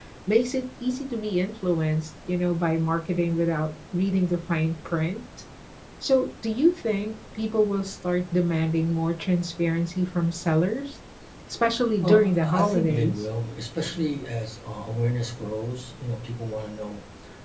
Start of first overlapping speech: 12.0 s

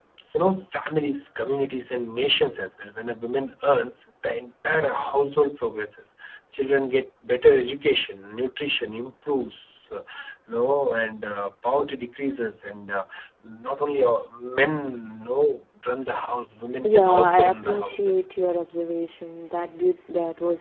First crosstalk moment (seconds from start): 16.8 s

